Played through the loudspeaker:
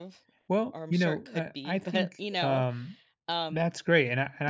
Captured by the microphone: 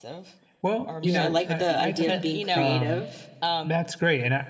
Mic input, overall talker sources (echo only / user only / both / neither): both